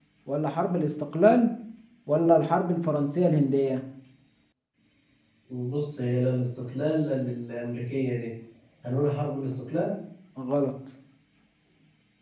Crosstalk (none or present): none